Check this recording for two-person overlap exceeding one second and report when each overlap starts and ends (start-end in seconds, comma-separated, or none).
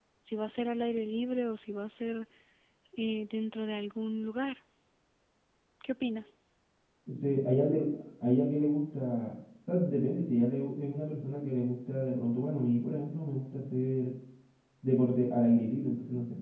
none